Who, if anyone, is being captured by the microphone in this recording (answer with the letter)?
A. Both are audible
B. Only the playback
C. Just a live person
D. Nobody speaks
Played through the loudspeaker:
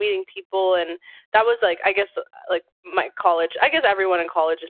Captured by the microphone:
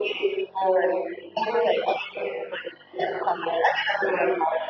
B